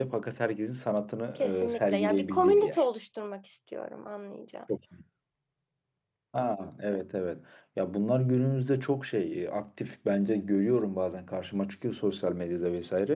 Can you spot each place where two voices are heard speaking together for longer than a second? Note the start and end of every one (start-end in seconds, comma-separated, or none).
1.6-2.8